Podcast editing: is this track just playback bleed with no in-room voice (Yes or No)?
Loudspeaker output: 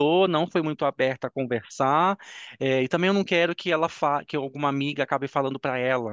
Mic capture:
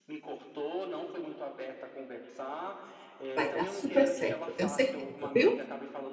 No